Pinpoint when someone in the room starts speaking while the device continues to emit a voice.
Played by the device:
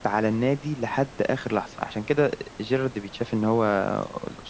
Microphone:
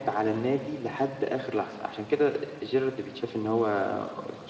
none

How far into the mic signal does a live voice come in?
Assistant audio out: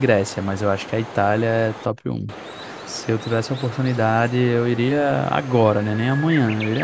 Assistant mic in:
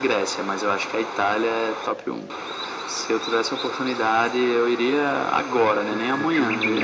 5.8 s

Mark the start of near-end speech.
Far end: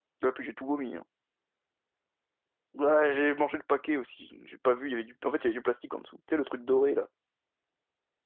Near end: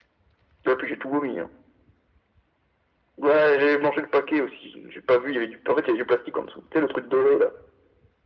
none

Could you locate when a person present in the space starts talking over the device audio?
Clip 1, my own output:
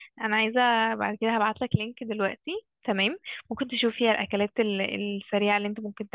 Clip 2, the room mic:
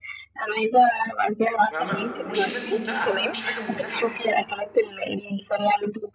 1.7 s

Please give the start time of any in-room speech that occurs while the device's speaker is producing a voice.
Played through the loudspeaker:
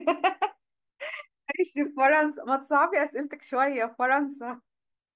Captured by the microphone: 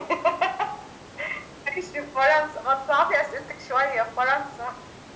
none

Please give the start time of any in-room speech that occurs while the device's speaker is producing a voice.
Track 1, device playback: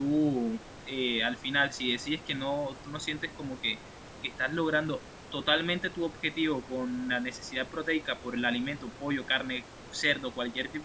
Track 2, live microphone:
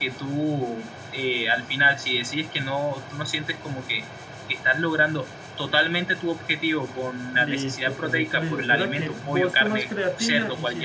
7.3 s

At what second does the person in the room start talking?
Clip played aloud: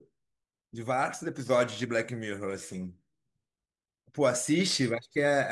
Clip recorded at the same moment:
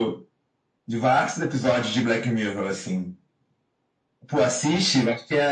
none

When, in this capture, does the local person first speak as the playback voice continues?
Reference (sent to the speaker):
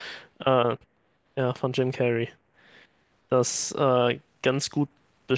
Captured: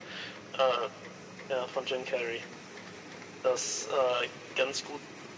none

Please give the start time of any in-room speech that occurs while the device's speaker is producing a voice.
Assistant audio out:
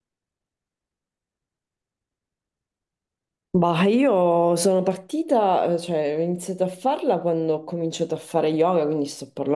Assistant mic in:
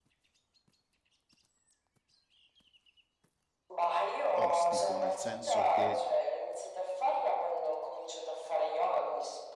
4.3 s

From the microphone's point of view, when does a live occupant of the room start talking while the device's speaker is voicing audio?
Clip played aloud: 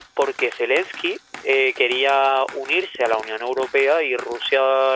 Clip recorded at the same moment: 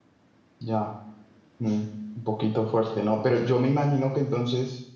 0.6 s

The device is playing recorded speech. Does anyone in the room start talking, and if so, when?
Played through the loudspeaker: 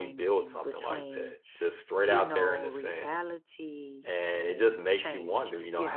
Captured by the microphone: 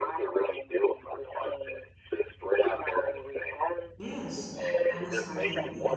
4.0 s

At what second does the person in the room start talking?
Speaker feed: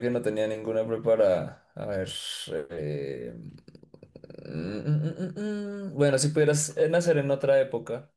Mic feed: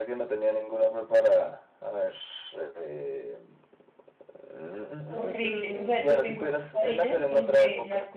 5.0 s

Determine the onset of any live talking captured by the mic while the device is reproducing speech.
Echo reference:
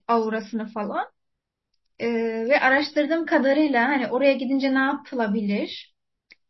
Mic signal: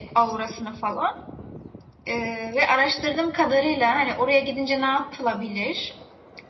none

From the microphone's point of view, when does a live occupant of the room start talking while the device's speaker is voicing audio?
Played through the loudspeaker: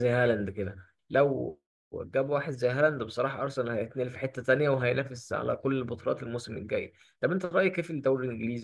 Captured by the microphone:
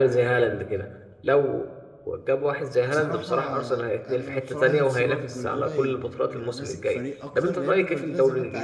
2.9 s

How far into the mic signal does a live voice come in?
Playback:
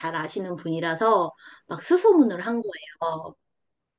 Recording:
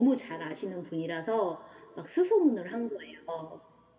none

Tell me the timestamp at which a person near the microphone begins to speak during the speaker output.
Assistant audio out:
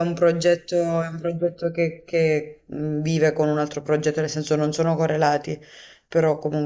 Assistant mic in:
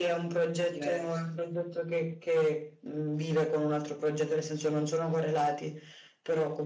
0.5 s

